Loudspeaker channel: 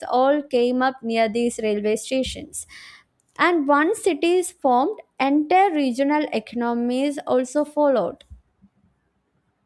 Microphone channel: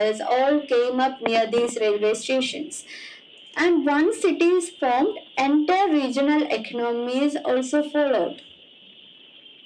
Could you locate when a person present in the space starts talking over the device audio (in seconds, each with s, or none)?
none